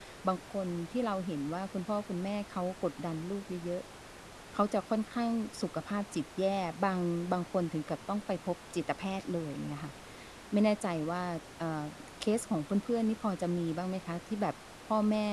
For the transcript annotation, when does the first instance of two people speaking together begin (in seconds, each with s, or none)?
none